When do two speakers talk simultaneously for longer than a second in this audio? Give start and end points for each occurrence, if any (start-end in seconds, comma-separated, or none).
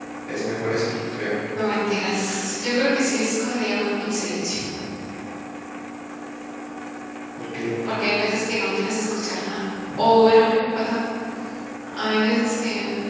none